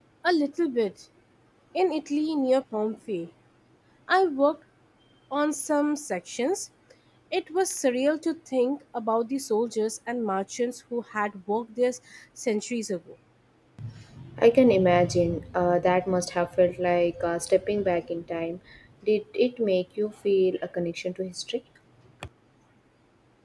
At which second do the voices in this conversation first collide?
none

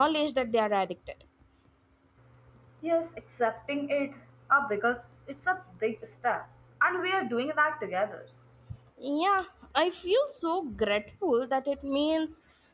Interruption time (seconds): none

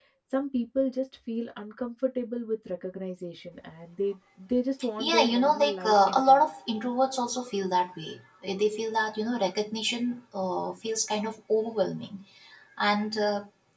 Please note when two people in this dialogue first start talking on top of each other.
5 s

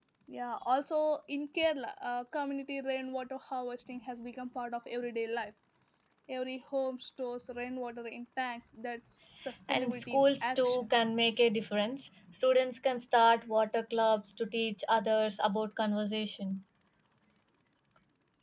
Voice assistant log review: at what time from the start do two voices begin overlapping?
10 s

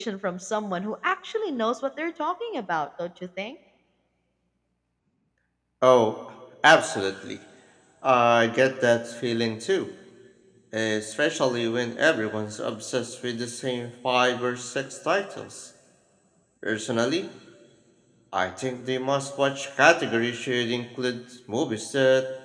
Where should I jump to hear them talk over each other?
none

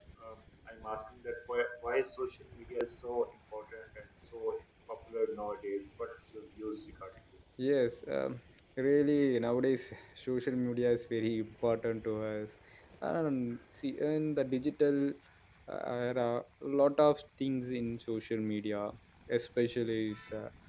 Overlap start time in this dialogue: none

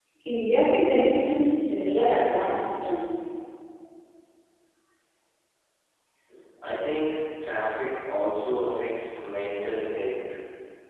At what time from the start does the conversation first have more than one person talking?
none

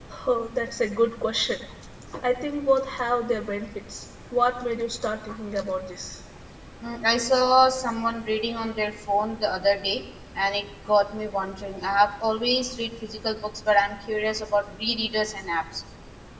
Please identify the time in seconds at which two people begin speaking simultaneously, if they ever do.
none

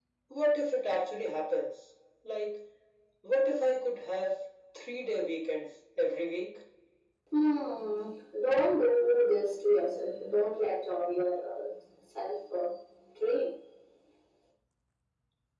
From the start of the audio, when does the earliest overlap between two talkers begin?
none

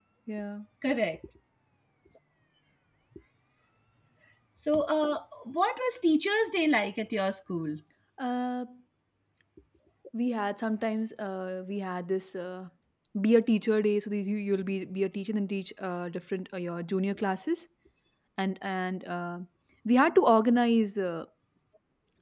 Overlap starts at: none

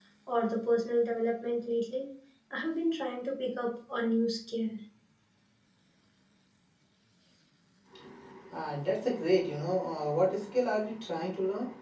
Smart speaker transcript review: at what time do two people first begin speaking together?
none

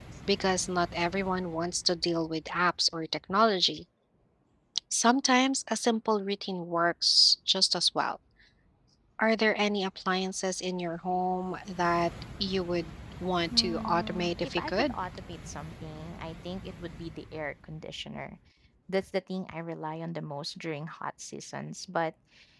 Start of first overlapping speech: 14 s

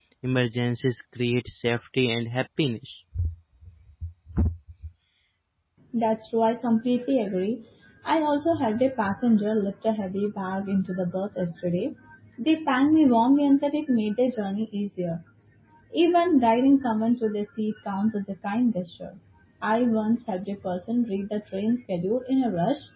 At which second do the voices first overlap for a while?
none

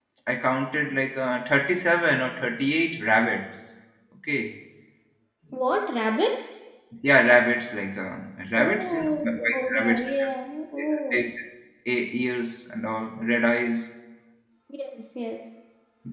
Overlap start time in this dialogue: 9 s

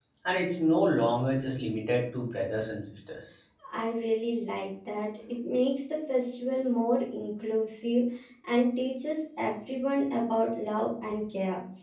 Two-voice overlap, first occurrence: none

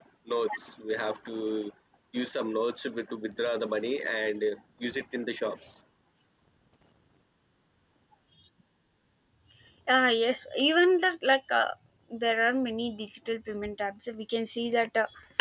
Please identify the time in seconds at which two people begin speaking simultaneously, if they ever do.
none

